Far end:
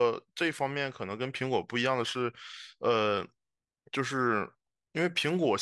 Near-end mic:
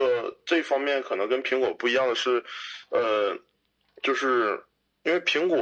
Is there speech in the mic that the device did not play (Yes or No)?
No